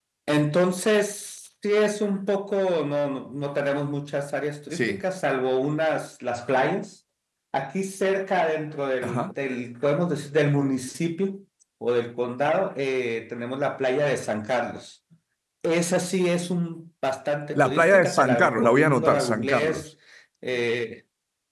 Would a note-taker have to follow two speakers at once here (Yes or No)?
Yes